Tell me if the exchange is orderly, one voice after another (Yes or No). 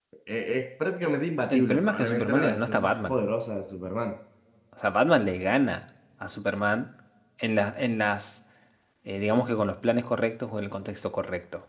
No